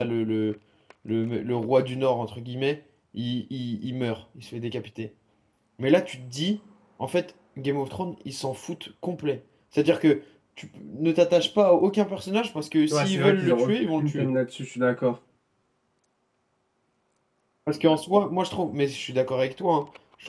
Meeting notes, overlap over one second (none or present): present